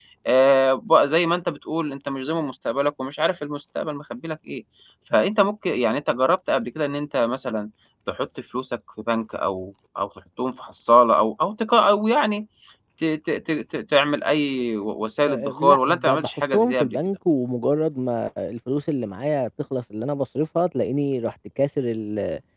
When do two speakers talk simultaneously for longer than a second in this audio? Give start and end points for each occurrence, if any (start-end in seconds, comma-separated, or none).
15.2-17.0